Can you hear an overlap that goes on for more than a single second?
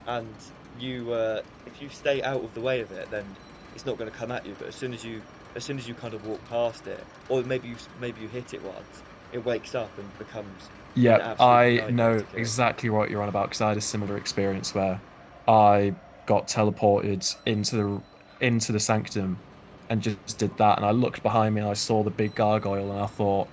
Yes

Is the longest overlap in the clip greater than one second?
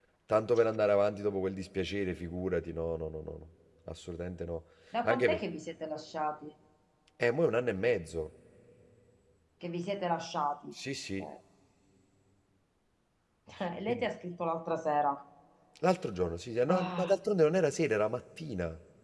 No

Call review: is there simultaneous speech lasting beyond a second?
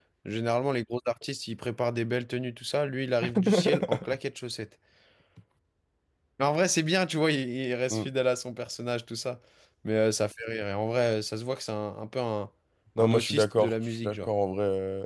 Yes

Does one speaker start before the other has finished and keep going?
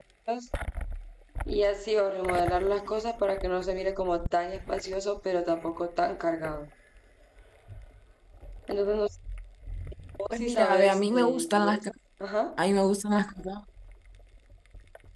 Yes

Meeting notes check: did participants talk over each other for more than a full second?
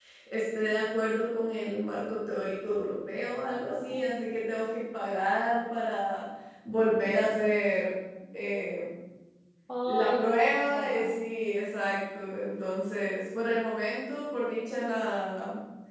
Yes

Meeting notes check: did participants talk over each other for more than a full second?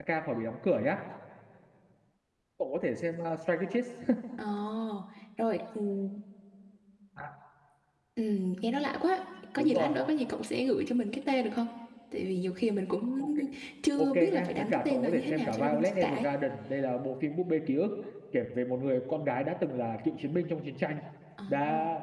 Yes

